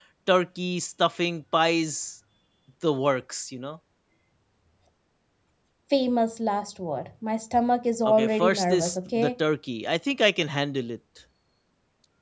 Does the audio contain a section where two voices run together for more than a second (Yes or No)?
Yes